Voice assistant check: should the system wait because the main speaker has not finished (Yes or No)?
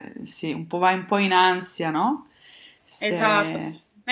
No